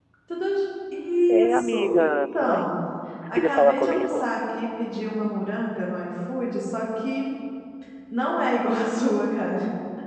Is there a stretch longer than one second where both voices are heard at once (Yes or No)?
Yes